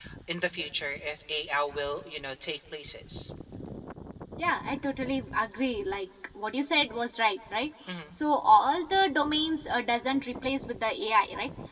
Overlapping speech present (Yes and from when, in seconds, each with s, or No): No